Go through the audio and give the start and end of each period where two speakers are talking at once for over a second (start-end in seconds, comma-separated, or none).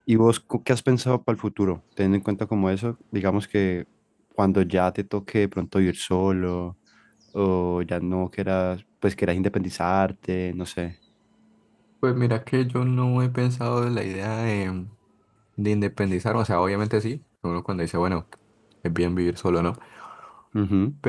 none